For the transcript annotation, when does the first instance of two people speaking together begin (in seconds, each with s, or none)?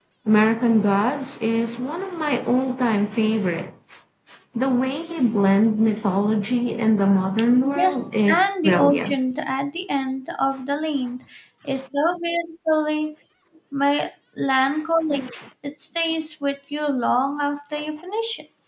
7.8 s